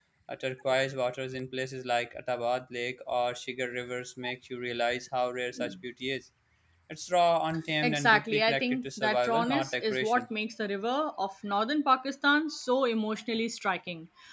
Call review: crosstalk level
present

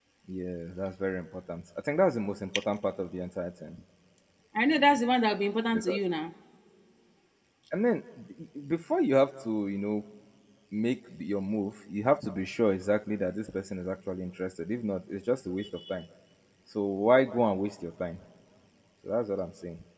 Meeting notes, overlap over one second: none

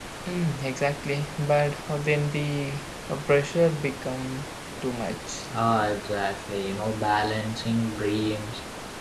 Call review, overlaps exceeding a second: none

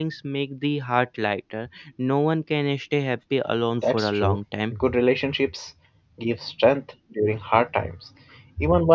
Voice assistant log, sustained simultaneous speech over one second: none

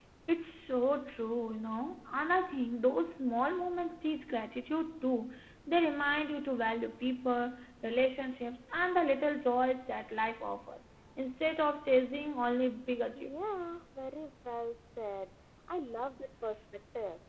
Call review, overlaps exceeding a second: none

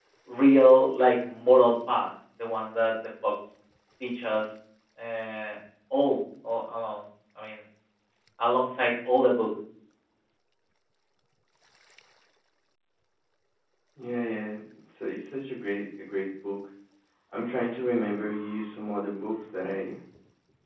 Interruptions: none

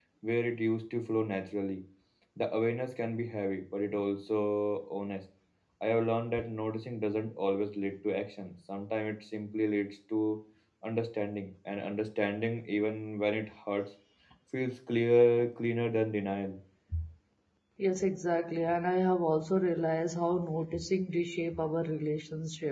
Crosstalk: none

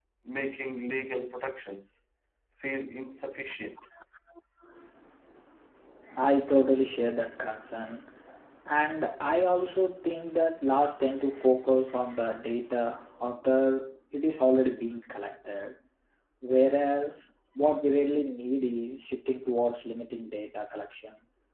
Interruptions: none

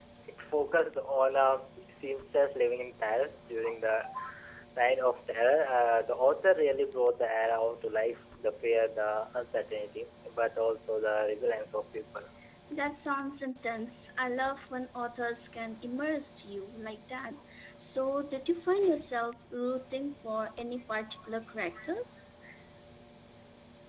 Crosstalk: none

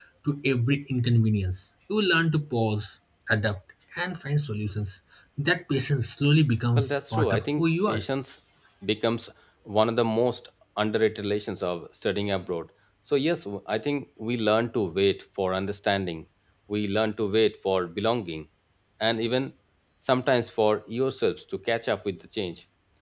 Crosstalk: present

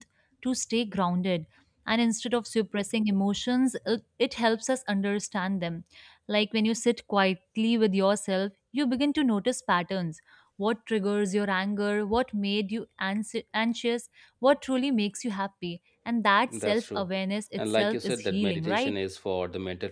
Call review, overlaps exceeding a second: present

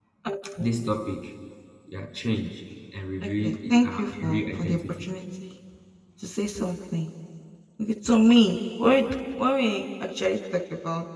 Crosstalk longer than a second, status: present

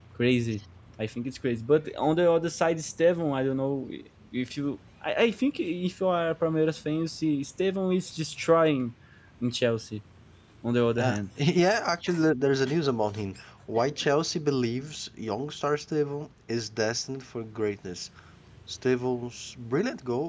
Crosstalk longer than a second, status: none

